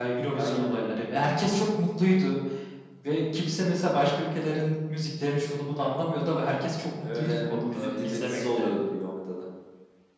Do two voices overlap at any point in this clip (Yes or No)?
Yes